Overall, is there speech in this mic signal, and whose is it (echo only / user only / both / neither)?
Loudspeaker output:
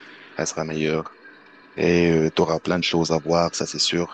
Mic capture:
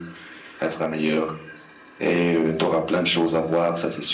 echo only